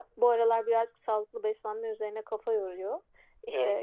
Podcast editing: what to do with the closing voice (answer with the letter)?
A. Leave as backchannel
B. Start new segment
A